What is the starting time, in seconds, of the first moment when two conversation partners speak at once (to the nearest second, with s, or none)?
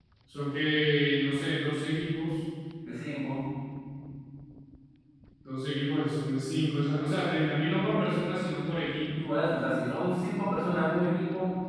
none